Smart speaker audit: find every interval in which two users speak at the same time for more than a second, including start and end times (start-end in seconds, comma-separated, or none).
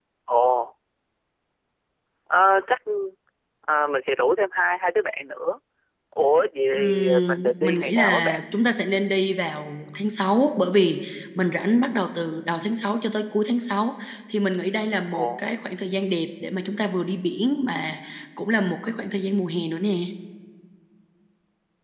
6.7-8.4